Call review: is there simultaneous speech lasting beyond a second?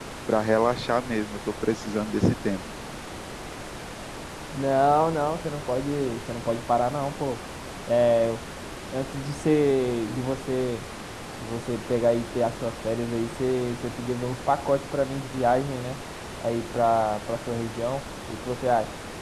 No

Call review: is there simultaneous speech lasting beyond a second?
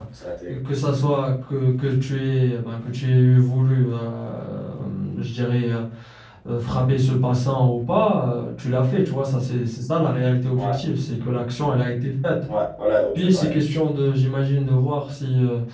No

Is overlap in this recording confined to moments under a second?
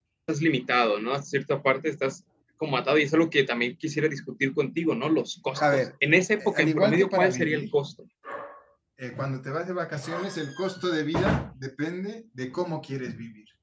No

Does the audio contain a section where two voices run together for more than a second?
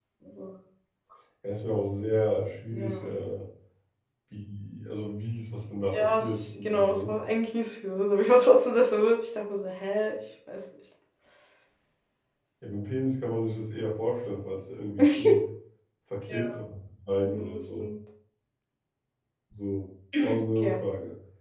Yes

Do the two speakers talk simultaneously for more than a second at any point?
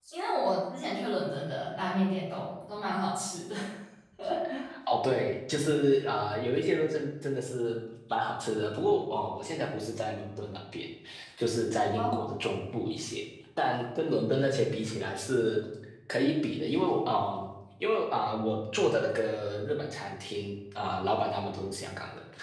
No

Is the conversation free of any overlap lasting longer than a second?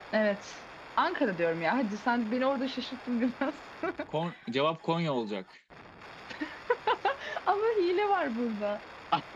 Yes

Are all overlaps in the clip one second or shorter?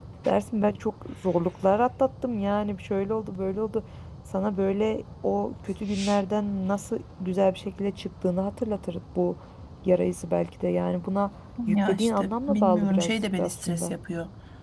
No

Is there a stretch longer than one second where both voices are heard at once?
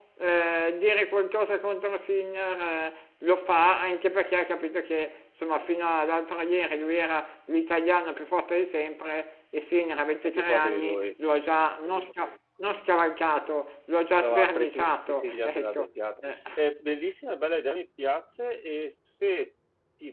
Yes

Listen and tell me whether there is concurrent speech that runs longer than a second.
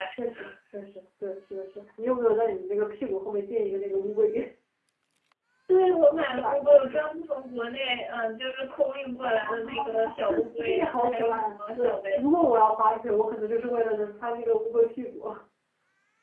Yes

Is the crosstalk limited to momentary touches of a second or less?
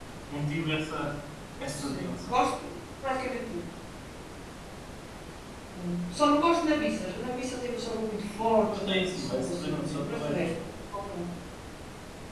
No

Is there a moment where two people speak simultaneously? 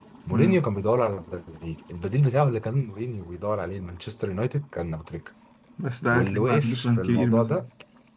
Yes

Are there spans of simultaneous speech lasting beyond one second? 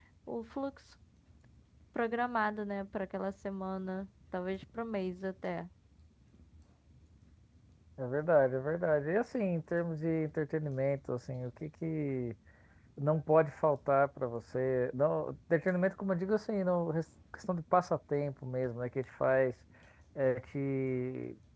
No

